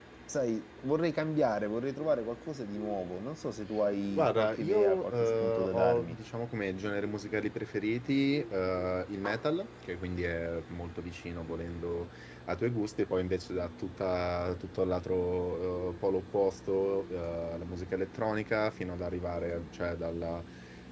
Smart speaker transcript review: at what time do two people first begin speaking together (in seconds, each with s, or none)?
4.1 s